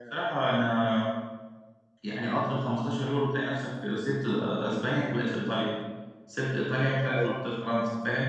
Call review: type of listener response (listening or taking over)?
listening